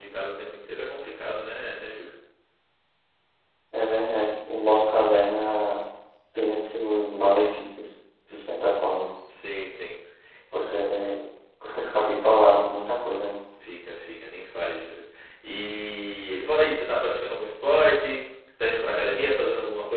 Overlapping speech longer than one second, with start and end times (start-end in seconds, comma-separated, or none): none